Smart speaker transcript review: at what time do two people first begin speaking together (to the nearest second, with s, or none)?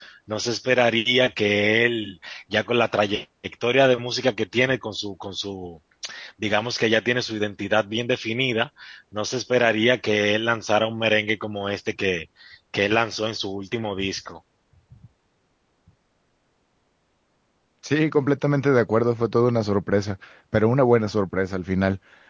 none